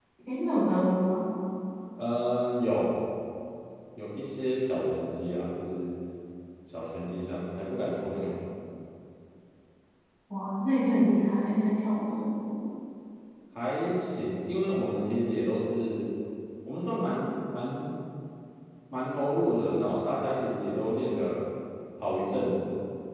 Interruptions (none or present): none